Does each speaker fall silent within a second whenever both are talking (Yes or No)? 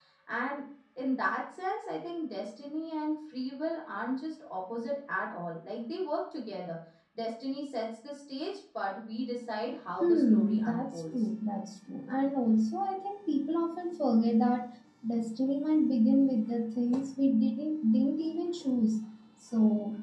No